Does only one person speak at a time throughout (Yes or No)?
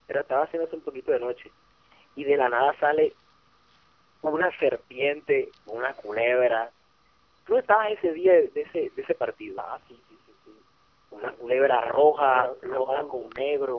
No